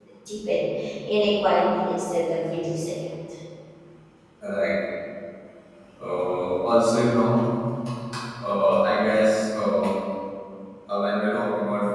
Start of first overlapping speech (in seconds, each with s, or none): none